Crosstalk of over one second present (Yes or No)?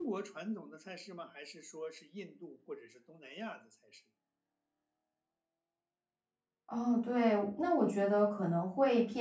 No